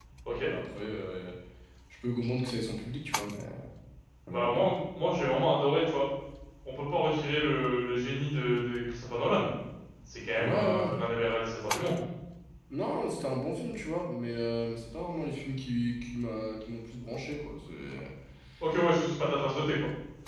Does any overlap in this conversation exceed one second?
No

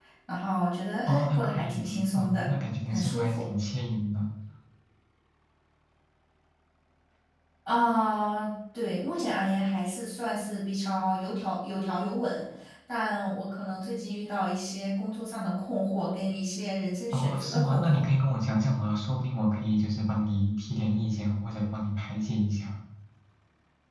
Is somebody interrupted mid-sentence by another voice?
Yes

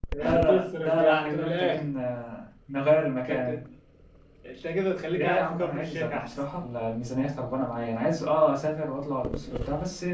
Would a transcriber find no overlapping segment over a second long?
No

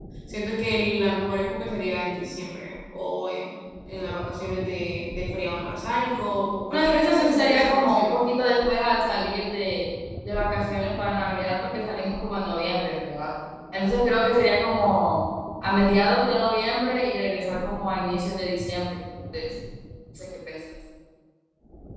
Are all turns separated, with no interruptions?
No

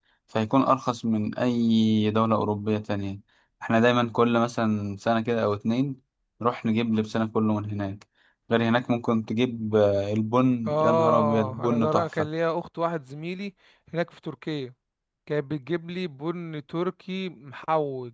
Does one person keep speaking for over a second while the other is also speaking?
Yes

